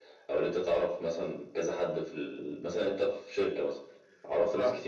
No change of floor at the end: Yes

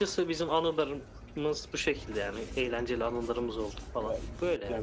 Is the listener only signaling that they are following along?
No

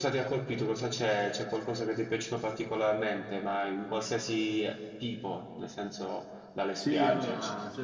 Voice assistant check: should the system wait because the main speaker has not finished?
No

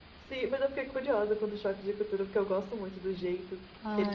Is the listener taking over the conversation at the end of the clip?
Yes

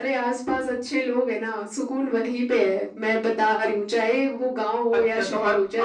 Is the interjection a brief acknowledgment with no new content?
No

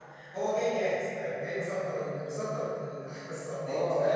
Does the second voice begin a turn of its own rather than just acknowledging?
Yes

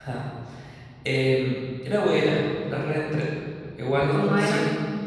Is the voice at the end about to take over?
No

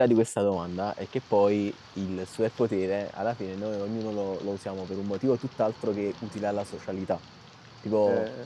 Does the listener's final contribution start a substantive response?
No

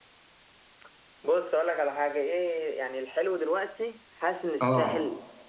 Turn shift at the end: No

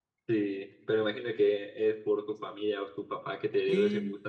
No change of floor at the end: No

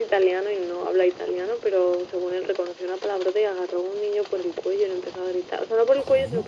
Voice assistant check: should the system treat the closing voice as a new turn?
No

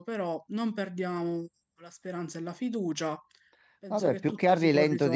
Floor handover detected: Yes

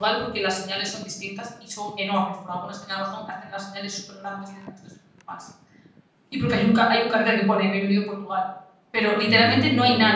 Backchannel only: Yes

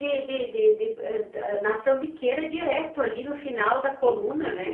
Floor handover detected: Yes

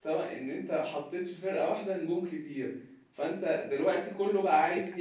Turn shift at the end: No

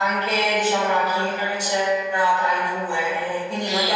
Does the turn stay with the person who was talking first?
Yes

